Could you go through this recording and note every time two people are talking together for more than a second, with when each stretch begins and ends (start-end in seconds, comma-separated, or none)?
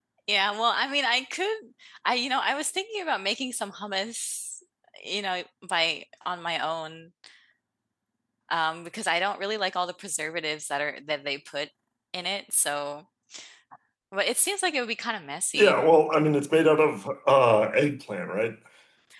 none